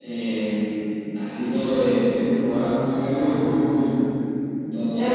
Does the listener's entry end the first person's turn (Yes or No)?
Yes